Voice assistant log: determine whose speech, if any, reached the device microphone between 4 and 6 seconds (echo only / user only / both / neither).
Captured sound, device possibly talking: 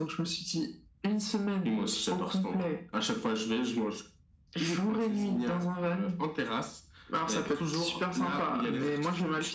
echo only